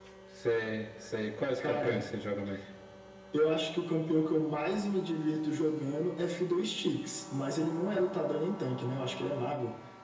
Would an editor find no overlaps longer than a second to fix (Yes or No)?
Yes